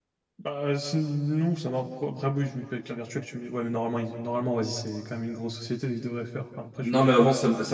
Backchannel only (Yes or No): No